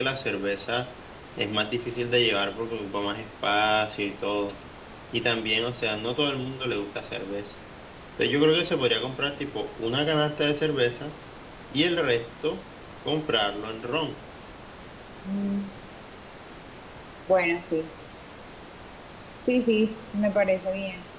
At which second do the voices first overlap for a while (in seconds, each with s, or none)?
none